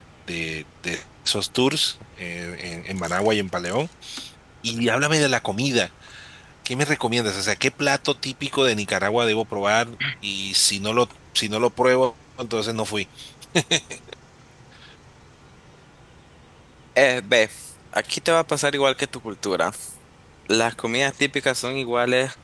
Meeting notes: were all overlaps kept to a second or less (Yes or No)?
Yes